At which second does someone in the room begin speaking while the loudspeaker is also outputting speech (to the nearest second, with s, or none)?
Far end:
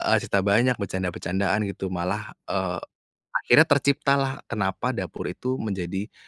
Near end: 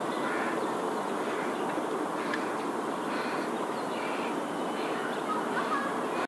none